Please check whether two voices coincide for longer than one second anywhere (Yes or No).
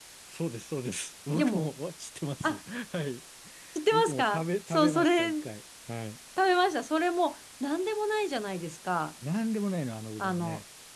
Yes